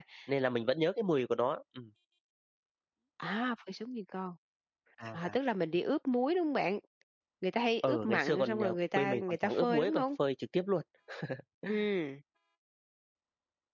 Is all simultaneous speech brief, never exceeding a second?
No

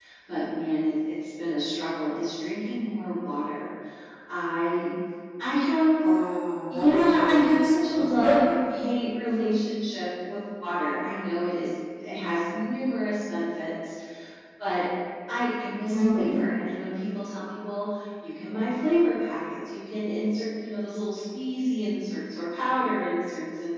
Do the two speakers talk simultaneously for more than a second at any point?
Yes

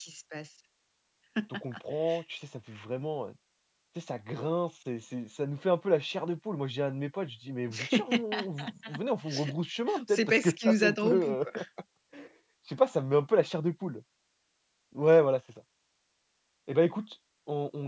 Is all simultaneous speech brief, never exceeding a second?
No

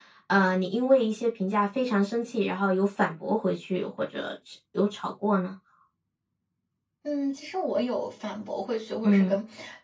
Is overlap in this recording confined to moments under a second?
Yes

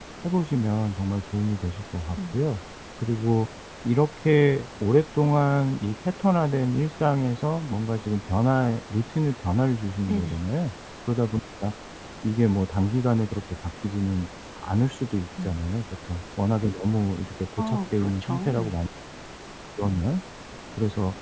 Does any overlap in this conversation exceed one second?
Yes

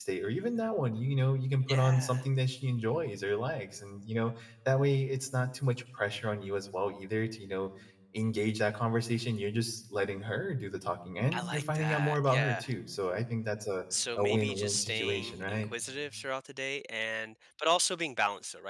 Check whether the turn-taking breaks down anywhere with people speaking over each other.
Yes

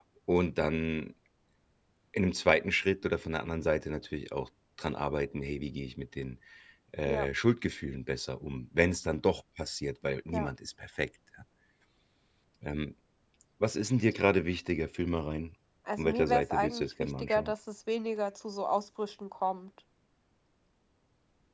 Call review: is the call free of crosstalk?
No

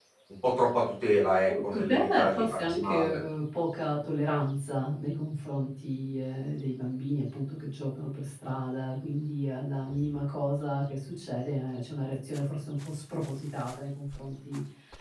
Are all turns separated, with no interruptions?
No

